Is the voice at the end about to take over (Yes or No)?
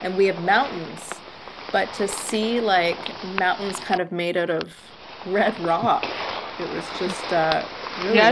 Yes